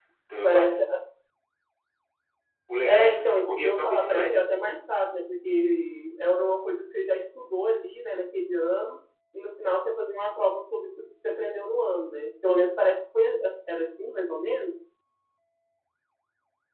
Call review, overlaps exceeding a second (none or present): present